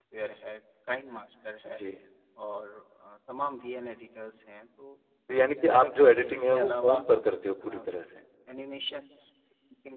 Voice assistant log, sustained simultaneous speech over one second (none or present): present